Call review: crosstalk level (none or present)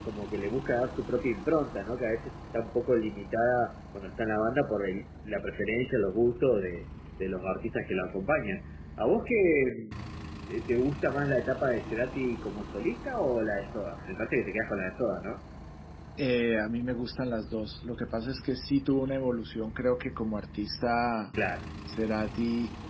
none